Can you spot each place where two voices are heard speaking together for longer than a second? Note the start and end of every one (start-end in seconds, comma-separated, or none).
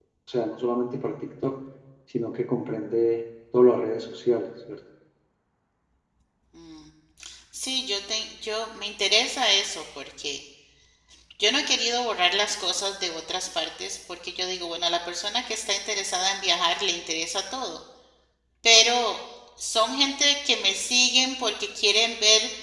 none